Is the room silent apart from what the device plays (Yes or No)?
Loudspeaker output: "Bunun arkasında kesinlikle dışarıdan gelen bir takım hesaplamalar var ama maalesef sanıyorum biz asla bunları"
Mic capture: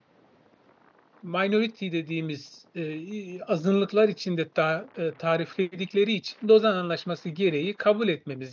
No